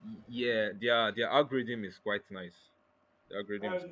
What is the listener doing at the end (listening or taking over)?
taking over